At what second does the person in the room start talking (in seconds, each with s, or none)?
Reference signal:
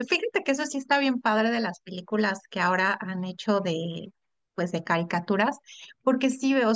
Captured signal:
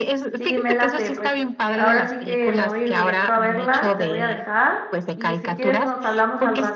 0.4 s